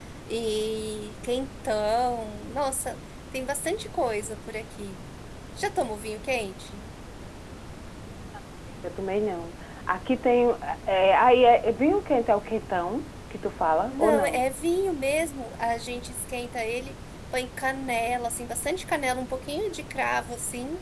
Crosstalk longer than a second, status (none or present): none